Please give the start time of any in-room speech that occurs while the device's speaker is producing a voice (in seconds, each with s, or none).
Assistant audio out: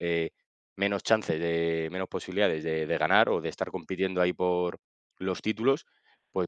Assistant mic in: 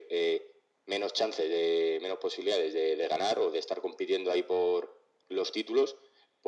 none